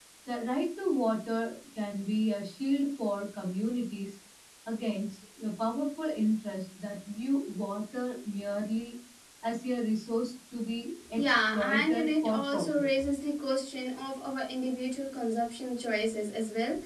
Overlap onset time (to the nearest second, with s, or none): 11 s